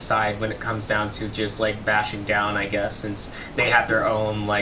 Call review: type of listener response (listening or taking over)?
listening